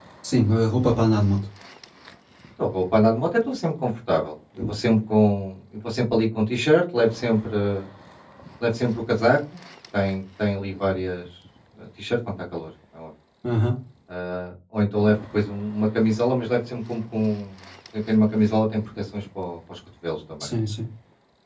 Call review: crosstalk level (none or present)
none